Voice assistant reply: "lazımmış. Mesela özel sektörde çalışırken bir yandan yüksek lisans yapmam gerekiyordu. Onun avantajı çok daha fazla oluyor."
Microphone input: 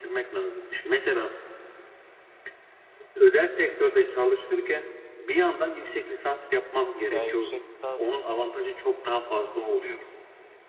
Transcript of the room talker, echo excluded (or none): Ya yüksek lisans